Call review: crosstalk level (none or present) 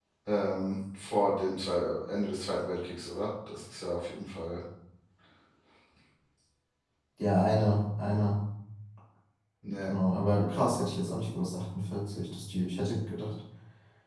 none